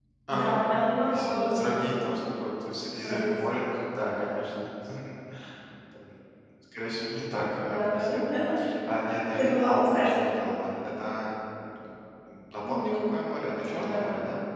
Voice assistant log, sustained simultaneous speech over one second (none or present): present